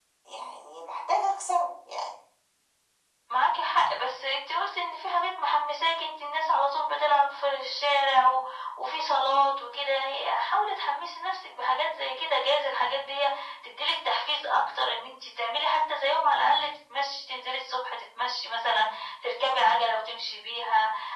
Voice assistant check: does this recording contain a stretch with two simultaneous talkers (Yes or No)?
No